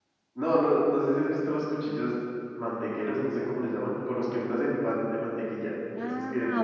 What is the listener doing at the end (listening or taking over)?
taking over